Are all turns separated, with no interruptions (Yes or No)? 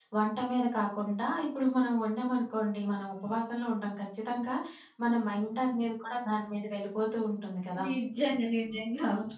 Yes